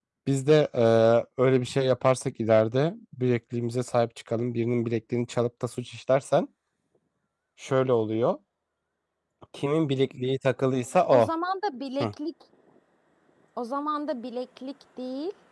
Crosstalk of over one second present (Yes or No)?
No